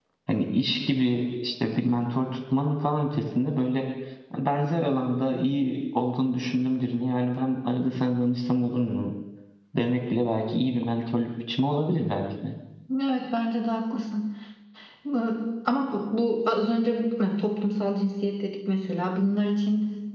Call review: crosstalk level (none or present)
none